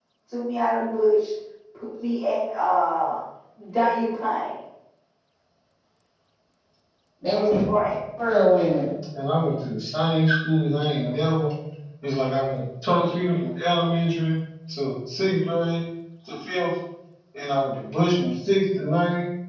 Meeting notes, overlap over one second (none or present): none